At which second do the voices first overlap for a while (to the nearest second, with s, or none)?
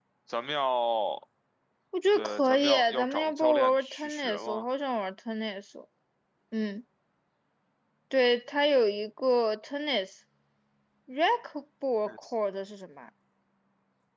2 s